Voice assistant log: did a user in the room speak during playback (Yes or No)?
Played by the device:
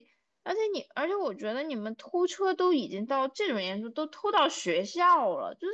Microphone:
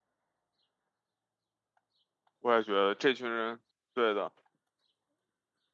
Yes